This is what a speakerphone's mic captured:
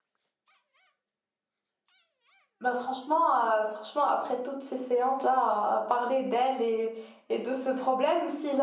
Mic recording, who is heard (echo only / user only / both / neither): user only